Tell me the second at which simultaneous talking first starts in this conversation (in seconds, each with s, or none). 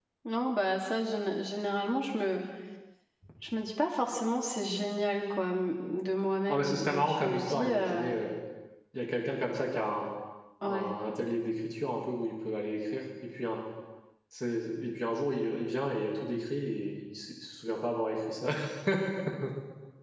6.5 s